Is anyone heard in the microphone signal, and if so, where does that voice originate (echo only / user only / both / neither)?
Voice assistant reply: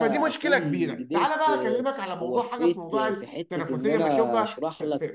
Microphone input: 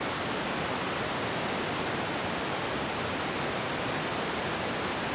neither